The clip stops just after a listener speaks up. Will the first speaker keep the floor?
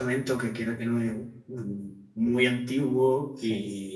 Yes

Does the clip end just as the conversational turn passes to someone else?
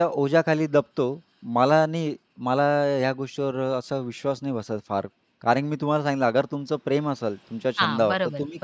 No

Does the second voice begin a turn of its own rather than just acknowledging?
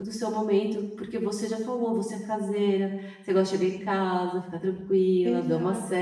Yes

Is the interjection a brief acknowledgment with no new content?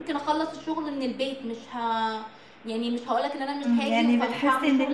No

